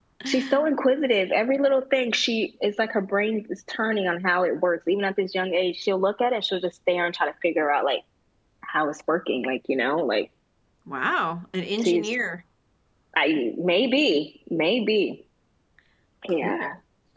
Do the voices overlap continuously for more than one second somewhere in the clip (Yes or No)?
No